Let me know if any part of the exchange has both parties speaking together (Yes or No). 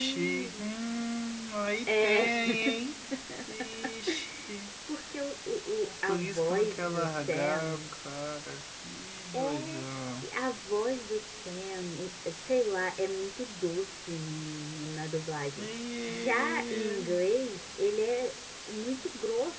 Yes